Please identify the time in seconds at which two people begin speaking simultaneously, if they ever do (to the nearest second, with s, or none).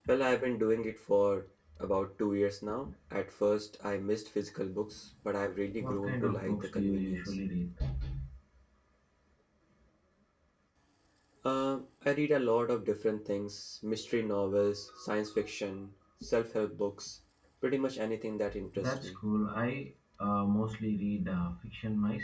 6 s